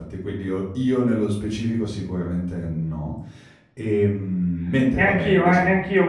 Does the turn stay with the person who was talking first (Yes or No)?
No